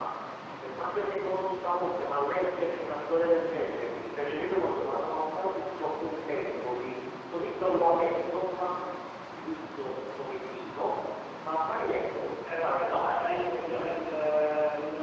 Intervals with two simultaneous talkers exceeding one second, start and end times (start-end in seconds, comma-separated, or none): 12.6-14.1